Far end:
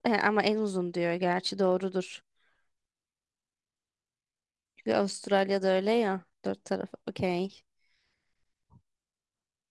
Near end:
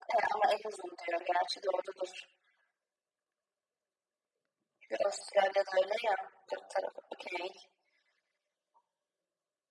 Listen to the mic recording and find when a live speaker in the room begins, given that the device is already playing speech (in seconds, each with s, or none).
none